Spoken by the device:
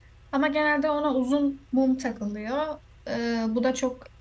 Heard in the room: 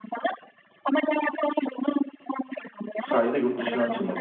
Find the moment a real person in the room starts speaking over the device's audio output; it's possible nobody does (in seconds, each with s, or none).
3.0 s